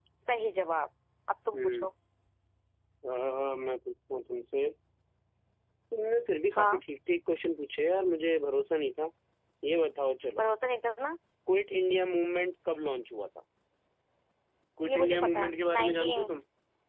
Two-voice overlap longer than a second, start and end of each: 14.8-16.3

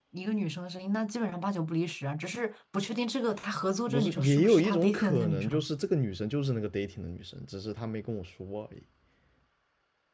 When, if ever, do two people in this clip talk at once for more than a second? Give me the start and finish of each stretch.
3.9-5.5

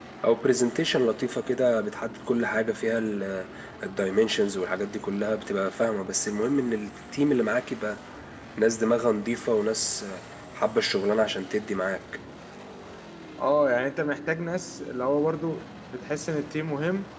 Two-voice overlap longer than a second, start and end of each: none

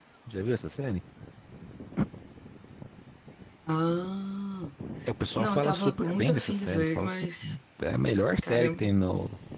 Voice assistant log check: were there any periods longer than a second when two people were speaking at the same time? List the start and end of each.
5.4-7.1

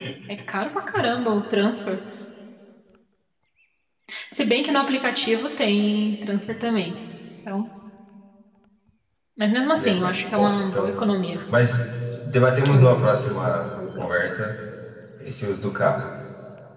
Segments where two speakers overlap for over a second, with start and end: 9.8-11.1

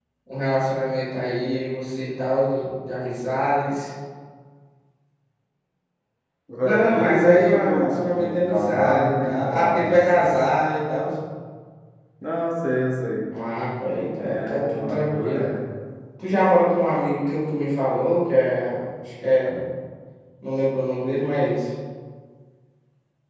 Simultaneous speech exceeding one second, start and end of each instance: 6.6-10.5, 14.2-15.5

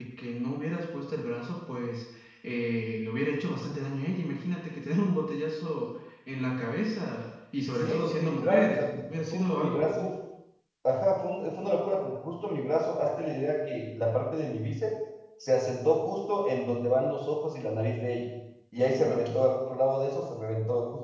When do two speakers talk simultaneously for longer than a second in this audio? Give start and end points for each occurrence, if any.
7.7-10.1

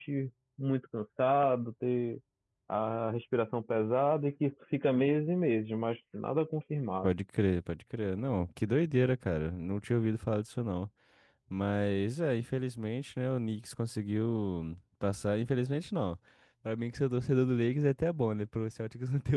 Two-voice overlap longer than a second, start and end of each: none

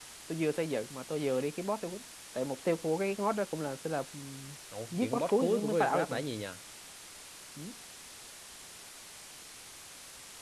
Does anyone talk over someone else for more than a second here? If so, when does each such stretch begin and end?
4.9-6.2

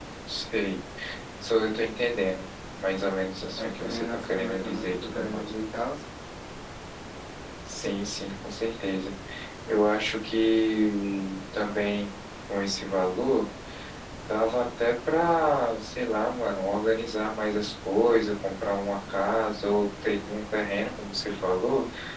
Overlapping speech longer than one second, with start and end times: 3.6-5.5

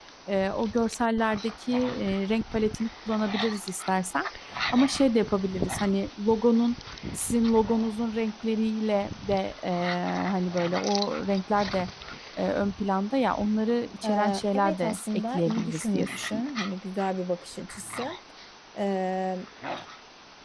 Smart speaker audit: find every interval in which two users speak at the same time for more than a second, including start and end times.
14.0-16.5

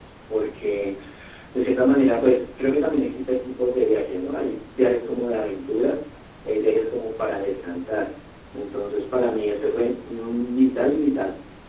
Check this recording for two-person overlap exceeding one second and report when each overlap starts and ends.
none

